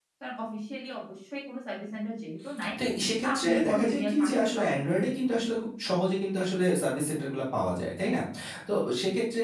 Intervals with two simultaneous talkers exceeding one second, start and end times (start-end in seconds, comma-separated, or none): 3.2-4.9